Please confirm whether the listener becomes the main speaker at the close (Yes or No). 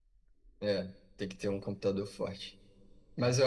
No